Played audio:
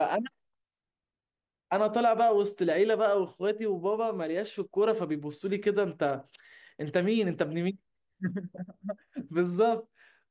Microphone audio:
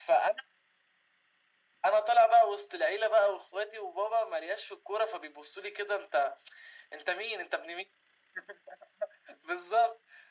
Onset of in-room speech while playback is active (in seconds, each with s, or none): none